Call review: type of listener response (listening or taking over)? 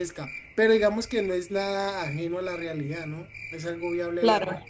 taking over